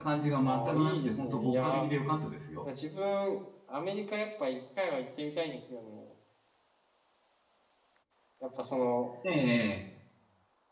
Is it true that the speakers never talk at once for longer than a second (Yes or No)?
No